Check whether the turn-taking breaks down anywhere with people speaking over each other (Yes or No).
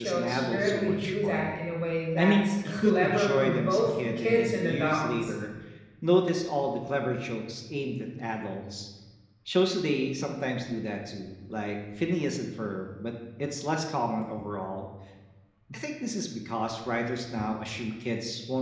Yes